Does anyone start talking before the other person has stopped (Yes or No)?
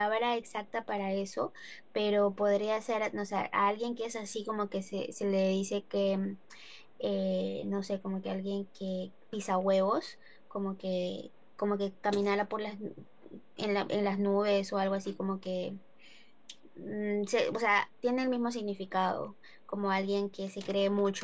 No